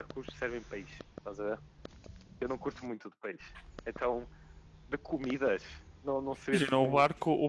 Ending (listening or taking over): taking over